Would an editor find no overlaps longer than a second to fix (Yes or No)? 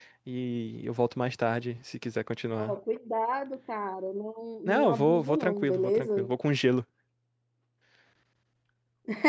No